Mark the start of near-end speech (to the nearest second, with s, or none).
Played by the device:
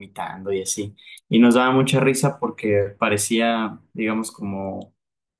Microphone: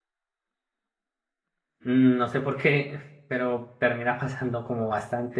2 s